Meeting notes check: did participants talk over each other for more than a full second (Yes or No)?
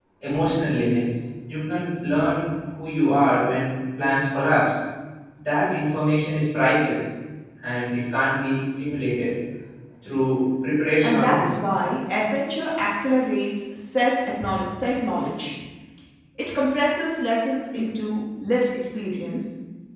No